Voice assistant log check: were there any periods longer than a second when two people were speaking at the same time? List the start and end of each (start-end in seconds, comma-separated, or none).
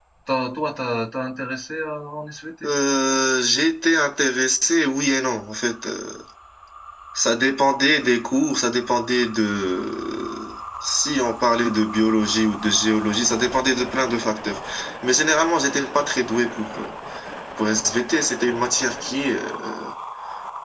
none